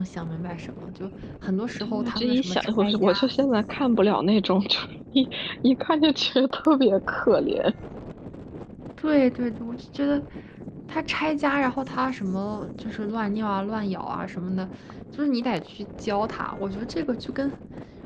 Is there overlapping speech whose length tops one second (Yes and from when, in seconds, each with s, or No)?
Yes, from 1.8 s